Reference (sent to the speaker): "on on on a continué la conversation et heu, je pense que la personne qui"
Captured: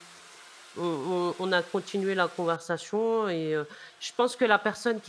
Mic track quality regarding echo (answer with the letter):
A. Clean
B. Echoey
B